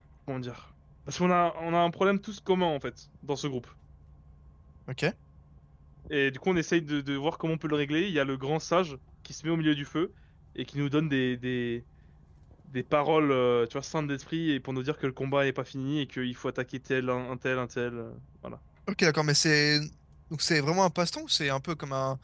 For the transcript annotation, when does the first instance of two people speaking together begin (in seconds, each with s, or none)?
none